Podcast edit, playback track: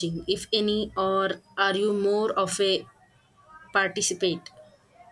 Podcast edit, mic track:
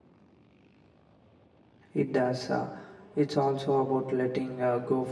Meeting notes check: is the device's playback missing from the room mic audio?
Yes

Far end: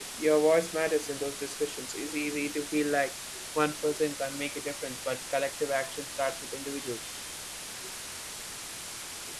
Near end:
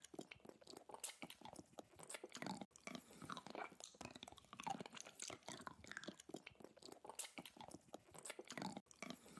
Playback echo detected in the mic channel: No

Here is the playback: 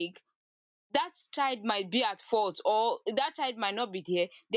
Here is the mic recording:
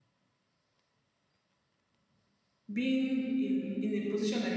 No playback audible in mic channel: Yes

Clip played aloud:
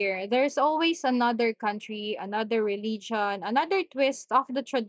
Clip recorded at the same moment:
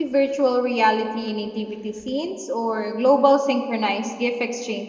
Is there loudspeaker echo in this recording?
No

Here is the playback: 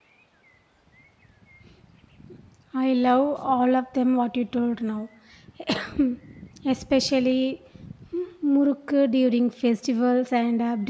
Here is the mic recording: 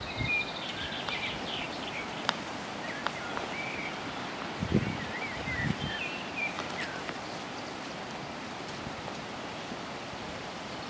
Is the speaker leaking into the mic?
No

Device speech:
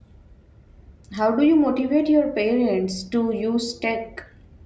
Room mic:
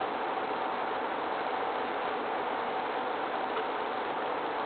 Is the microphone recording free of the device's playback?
Yes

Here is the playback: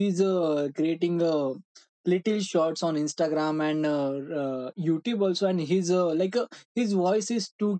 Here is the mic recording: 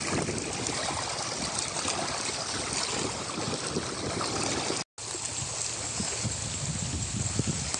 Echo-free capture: Yes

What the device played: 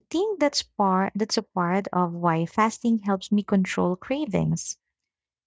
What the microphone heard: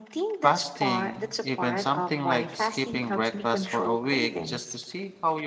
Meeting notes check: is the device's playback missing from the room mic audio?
No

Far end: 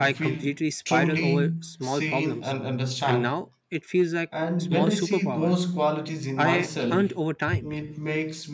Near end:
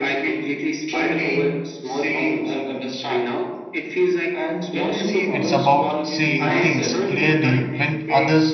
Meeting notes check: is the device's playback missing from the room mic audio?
No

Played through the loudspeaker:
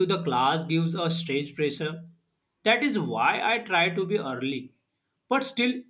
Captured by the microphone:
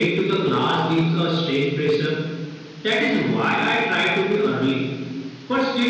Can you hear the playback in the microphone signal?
Yes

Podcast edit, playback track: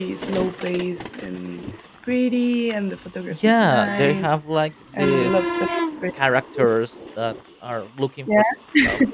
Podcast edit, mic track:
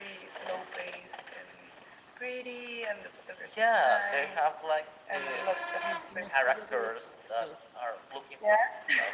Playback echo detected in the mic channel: Yes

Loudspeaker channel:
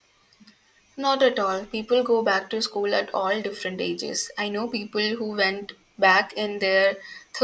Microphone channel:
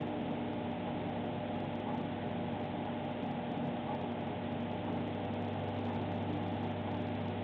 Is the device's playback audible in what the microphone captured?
No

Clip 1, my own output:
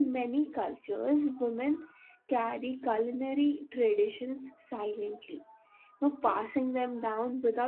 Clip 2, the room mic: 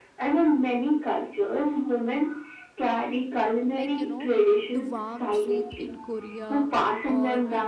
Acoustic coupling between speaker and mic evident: Yes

